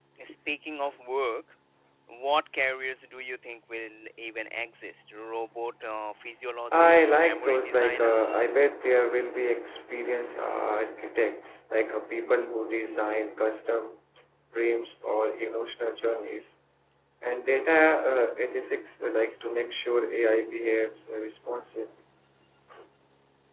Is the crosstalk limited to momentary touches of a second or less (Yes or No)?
No